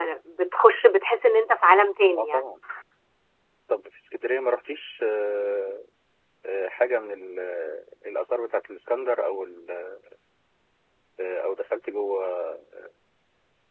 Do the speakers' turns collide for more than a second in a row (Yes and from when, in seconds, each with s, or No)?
No